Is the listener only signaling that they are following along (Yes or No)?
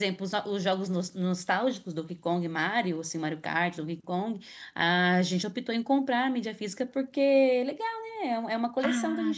No